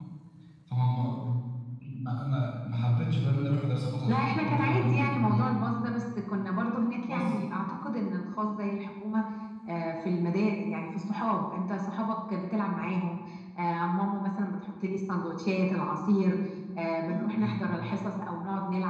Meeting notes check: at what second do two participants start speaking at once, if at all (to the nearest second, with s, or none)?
4 s